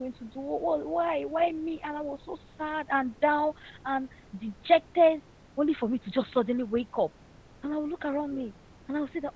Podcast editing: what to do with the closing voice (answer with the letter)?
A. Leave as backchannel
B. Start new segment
A